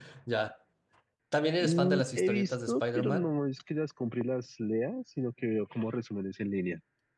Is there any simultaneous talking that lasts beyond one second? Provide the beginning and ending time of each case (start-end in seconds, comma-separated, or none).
1.6-3.3